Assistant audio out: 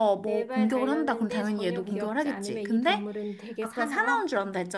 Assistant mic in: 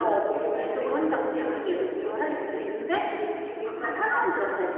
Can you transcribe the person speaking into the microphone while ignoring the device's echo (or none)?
none